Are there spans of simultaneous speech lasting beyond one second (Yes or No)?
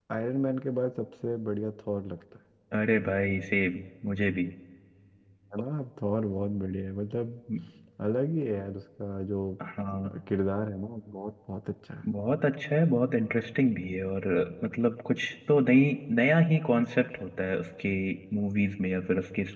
No